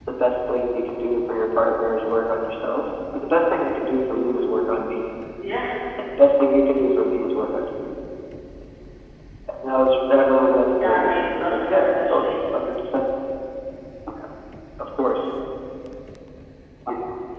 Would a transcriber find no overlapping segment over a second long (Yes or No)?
No